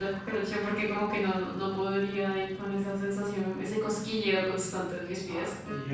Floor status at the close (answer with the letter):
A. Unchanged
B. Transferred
B